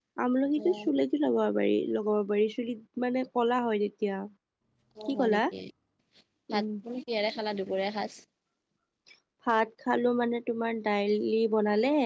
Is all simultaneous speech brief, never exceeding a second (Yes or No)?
Yes